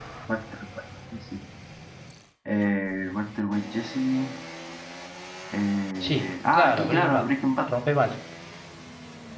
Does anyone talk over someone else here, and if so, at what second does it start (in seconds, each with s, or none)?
6.0 s